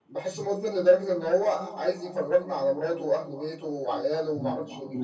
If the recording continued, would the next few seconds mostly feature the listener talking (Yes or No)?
Yes